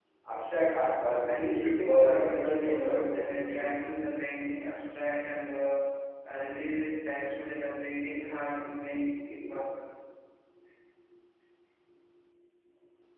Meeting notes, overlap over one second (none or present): present